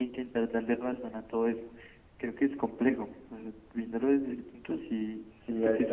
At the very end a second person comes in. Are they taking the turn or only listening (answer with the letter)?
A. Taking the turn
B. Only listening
A